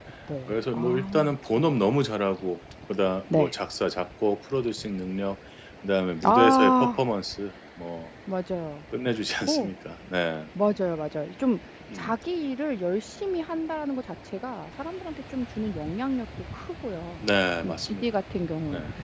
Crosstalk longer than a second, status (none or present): present